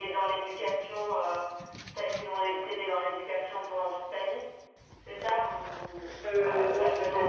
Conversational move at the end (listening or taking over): taking over